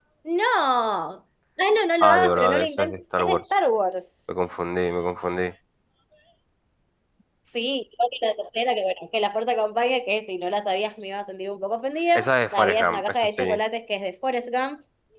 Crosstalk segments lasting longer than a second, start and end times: 2.0-3.4, 12.2-13.6

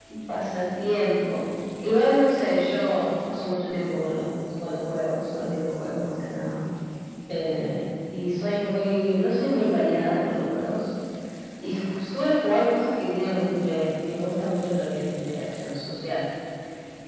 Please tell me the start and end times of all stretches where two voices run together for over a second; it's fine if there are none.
none

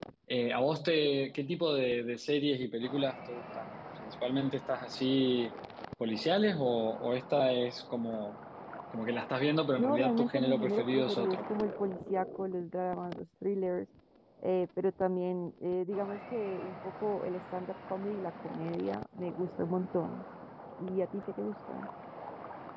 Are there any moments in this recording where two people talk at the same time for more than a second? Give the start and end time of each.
9.8-11.4

